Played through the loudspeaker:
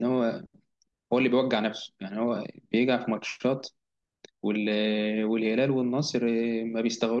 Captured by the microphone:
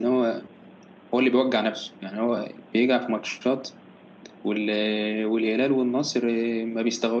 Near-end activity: none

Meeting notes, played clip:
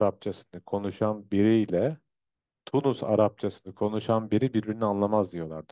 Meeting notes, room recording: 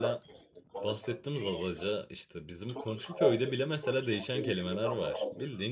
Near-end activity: present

